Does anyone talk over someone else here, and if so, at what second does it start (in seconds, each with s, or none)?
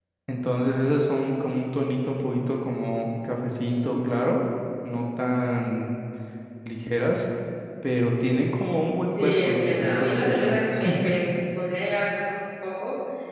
9.0 s